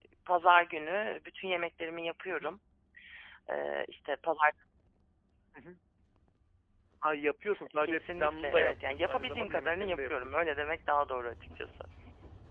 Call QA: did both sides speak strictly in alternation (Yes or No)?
No